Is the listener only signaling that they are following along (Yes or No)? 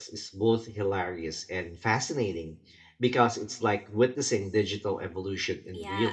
No